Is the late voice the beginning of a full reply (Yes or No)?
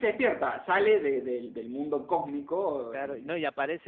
Yes